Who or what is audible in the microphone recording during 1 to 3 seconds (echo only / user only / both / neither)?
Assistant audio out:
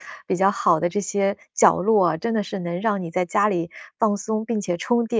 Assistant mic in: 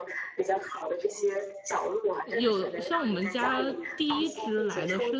both